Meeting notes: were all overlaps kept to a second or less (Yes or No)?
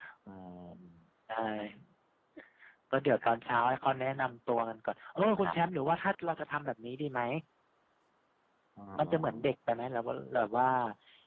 Yes